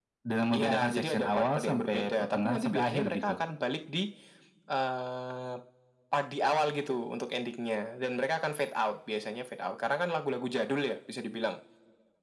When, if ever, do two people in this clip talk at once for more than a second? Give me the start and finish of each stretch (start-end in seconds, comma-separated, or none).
0.5-3.3